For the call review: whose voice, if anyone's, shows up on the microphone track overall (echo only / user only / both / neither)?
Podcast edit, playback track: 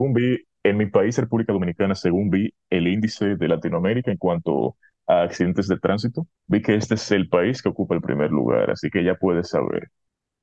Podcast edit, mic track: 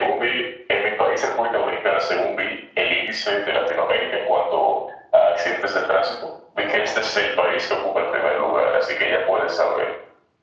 echo only